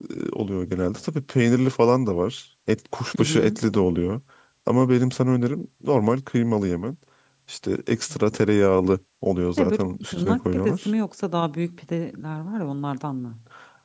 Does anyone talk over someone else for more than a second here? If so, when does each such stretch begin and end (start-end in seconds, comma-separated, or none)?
9.6-10.9